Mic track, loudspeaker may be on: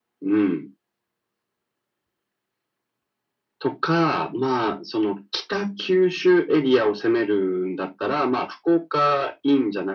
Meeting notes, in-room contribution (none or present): none